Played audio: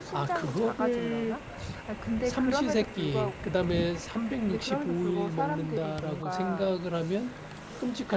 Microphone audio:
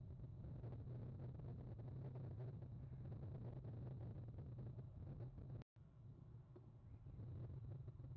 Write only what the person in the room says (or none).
none